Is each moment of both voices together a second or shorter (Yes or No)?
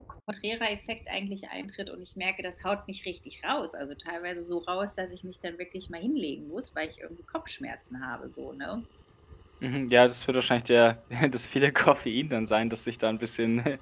Yes